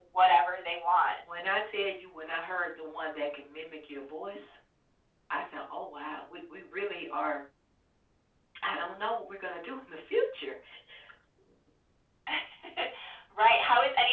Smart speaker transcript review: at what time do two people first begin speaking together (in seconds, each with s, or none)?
none